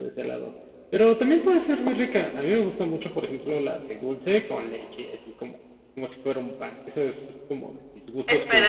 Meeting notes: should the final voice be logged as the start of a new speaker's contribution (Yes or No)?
Yes